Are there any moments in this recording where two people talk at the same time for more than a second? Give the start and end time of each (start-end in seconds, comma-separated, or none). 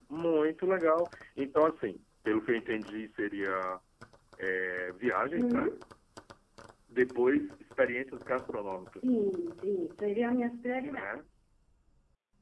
none